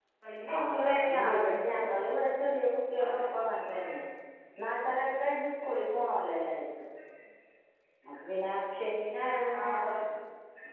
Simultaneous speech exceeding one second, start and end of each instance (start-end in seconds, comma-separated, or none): 0.5-2.0